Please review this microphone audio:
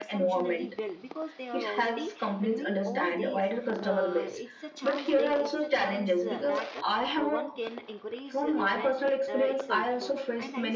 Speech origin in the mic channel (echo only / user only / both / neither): both